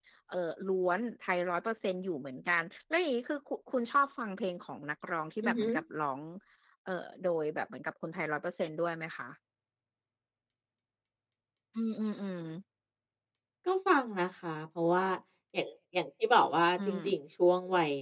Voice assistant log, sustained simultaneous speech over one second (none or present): none